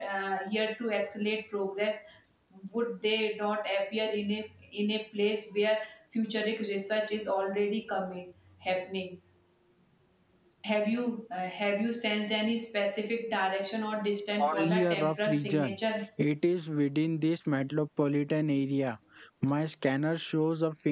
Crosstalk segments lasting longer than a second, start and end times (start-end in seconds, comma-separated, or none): 14.4-15.8